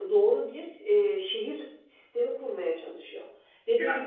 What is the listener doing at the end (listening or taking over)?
listening